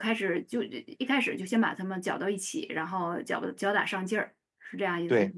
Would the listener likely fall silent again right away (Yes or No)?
No